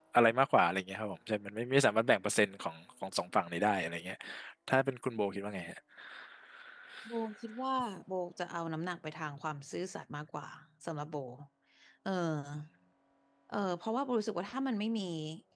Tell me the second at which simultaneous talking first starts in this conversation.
none

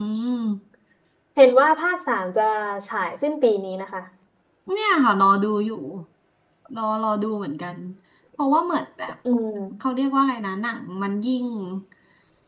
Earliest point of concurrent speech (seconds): none

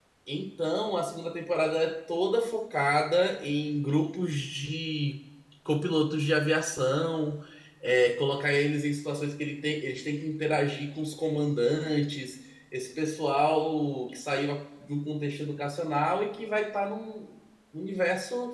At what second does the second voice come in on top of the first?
none

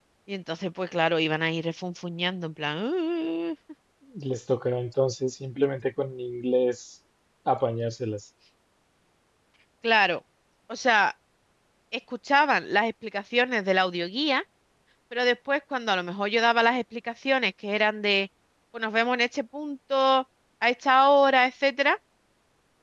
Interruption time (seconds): none

